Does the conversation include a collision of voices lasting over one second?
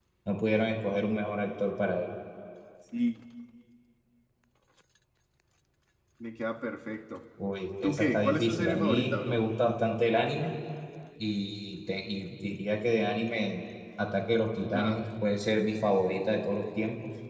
Yes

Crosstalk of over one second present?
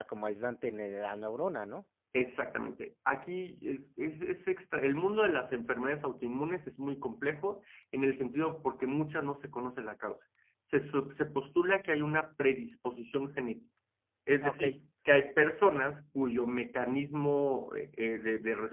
No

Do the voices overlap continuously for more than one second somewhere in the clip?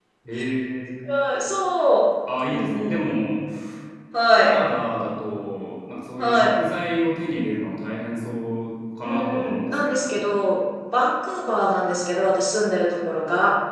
Yes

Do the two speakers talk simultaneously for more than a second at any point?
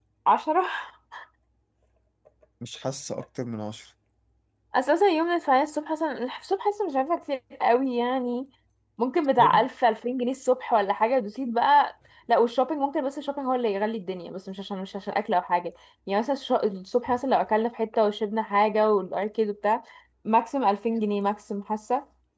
No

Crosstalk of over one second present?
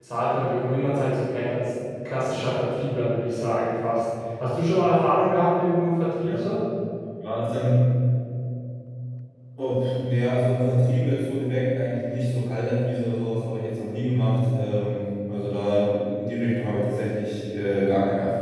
No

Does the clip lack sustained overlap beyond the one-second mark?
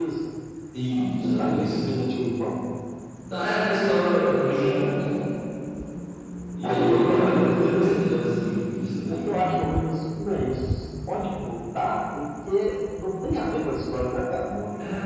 No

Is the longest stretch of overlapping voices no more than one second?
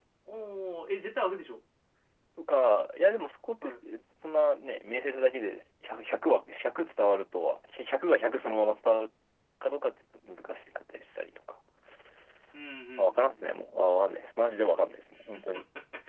Yes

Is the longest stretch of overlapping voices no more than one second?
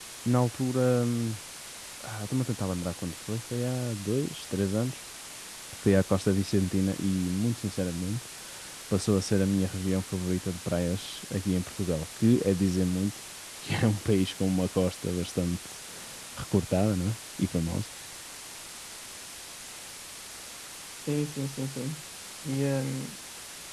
Yes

